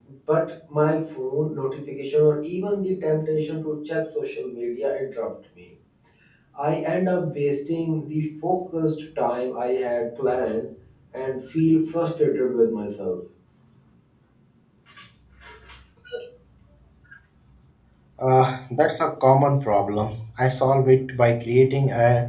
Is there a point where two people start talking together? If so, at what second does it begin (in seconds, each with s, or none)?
none